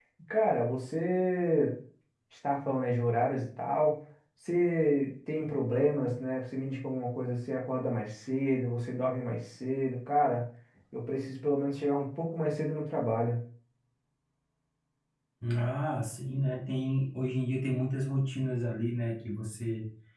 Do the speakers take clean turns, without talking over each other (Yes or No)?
Yes